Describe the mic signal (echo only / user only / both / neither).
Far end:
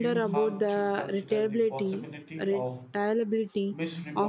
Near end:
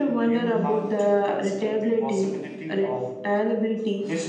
echo only